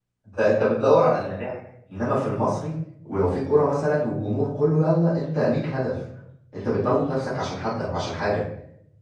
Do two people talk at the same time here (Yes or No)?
No